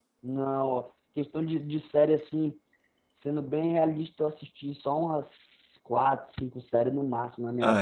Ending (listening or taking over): listening